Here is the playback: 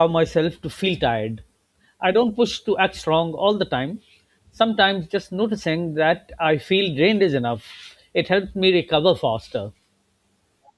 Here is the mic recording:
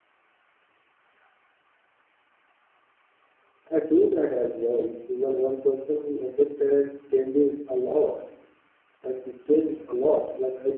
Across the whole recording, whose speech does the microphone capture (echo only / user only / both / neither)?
user only